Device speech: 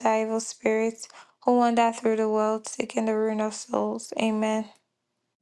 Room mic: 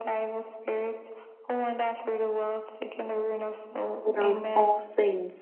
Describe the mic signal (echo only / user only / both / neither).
both